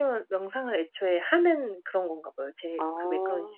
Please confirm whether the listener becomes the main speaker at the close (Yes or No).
Yes